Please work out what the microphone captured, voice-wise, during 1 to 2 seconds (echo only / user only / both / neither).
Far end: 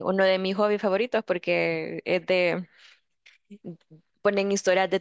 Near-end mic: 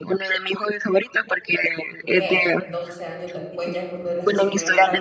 echo only